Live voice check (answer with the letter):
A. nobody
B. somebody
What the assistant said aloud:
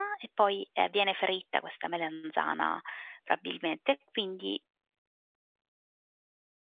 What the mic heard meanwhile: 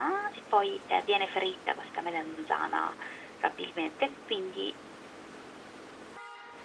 A